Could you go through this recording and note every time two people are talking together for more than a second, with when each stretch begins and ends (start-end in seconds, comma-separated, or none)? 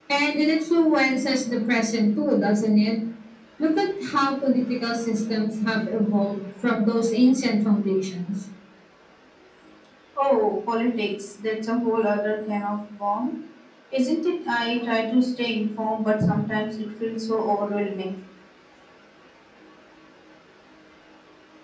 none